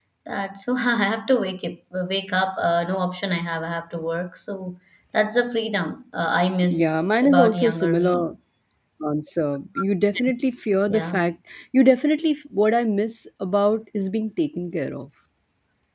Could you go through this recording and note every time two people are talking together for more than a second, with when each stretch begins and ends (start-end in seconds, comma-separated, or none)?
6.7-8.3